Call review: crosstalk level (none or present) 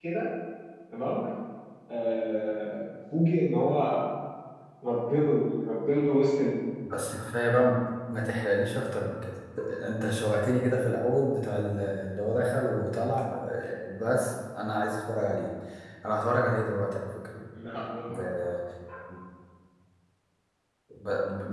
none